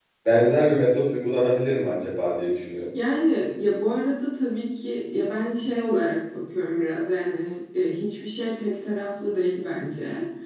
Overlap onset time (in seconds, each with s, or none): none